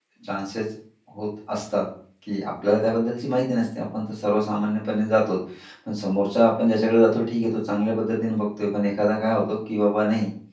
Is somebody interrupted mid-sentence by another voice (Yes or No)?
No